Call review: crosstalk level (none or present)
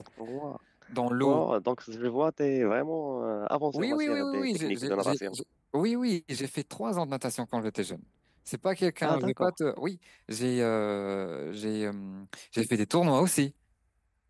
present